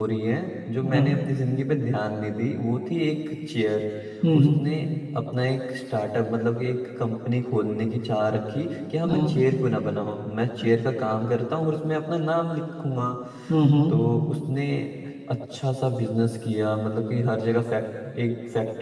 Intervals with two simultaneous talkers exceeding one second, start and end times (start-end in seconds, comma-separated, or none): none